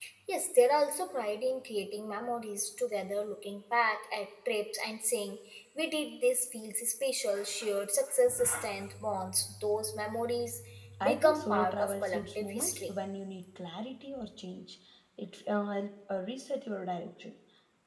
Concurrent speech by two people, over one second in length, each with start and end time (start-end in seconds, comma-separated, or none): 11.0-12.9